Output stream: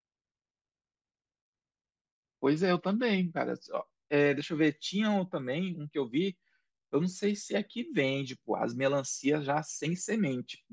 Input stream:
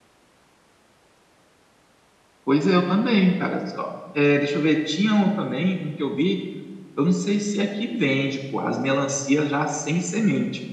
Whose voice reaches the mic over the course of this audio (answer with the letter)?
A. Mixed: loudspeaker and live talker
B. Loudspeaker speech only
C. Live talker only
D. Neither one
B